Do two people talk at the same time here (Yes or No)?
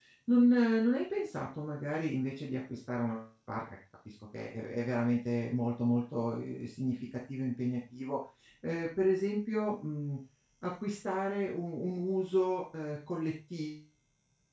No